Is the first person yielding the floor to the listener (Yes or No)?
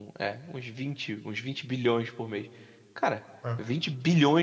No